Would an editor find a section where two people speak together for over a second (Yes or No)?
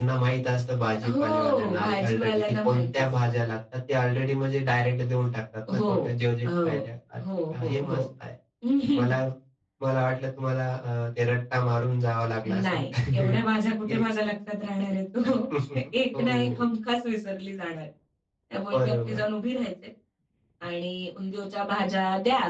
Yes